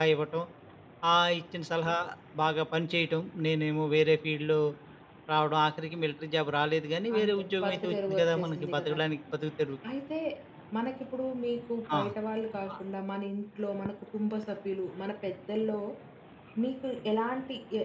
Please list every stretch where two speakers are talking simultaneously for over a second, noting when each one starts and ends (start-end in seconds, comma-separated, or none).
7.2-9.0